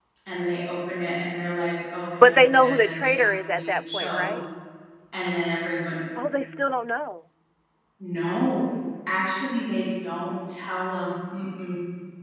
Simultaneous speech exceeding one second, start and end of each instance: 2.2-4.3

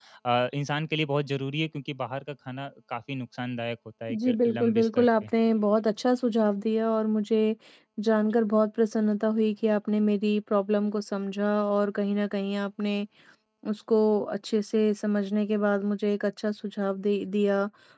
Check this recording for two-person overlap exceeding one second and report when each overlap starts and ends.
4.1-5.3

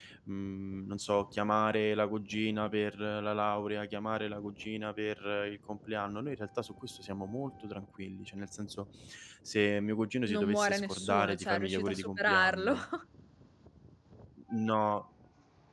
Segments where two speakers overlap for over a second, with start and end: 10.3-12.7

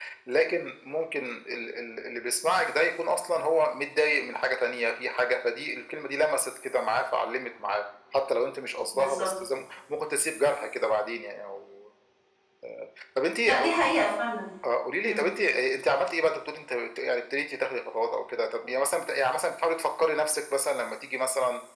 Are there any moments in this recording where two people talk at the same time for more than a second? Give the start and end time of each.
none

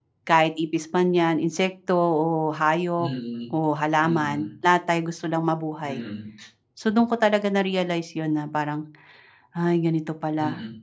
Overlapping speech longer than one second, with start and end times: none

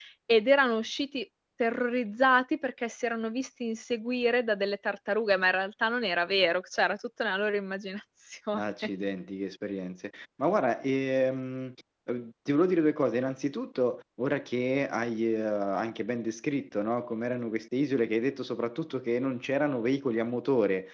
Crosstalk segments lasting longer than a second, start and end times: none

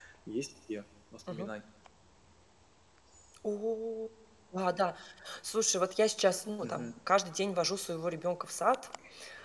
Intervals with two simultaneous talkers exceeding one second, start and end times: none

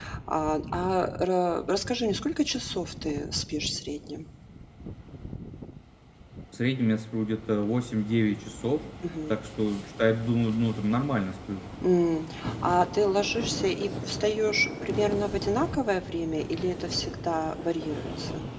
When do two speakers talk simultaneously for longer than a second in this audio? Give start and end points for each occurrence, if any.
none

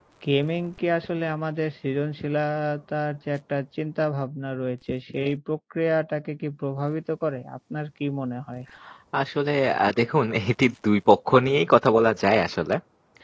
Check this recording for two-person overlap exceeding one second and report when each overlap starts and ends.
none

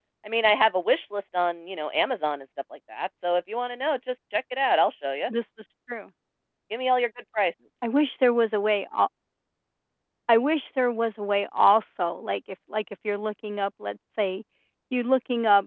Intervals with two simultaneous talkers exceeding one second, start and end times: none

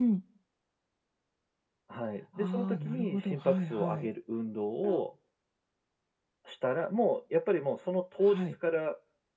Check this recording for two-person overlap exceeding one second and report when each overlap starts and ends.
2.4-4.1

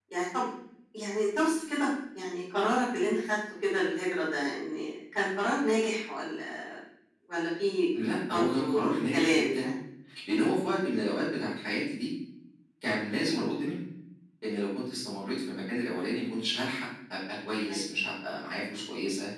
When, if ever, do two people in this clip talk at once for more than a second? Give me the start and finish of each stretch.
8.3-9.7

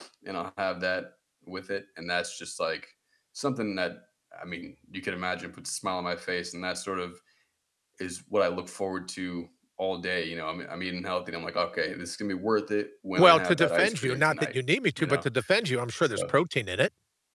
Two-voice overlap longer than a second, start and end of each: 13.2-14.6

